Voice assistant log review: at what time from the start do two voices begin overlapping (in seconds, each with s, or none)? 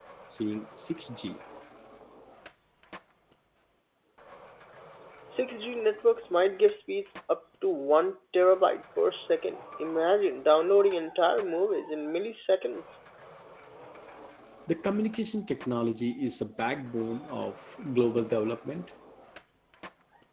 none